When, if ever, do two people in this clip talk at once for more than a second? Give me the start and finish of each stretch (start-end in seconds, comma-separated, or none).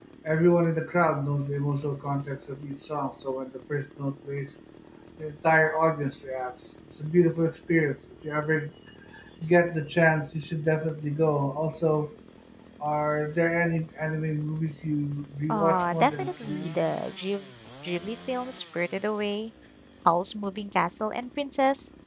15.5-17.0